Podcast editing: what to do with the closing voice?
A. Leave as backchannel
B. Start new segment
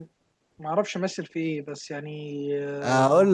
B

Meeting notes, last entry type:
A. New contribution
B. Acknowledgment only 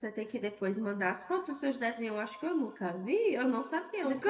B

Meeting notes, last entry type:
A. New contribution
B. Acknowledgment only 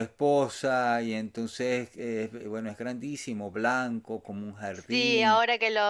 A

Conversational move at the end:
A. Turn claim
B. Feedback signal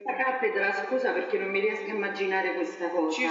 A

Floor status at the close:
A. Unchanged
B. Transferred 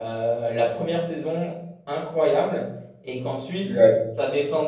A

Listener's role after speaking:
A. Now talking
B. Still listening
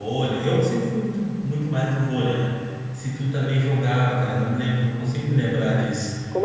A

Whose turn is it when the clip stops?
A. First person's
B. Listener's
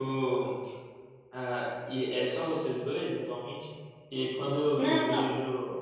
A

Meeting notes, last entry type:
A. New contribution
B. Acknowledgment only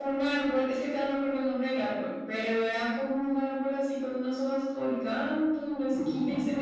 B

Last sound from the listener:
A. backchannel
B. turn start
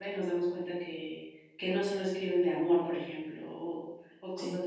A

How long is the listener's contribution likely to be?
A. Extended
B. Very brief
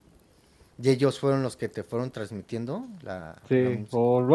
A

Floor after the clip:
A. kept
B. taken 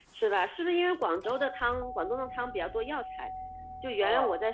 A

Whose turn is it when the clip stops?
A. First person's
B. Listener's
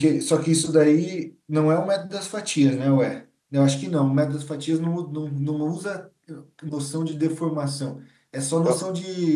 A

